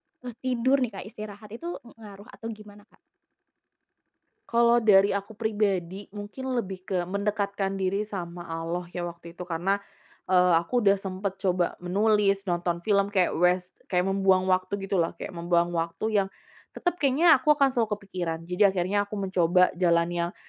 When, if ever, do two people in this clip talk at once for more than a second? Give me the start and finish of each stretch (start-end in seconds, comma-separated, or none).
none